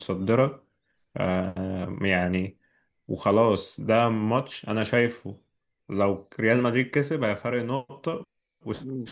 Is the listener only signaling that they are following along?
Yes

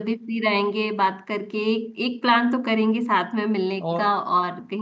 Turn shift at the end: No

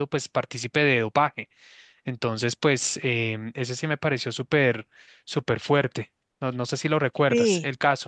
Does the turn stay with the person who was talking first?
No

